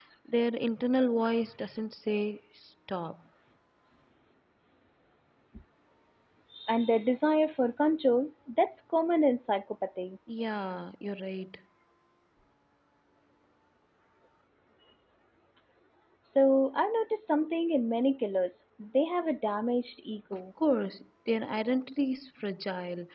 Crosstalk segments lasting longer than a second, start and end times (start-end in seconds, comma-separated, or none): none